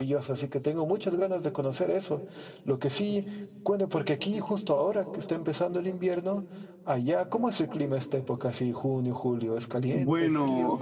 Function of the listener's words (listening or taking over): taking over